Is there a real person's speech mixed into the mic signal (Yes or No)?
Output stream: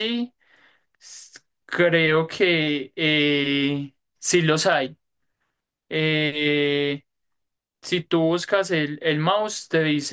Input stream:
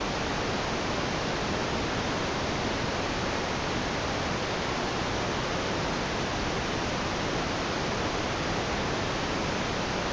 No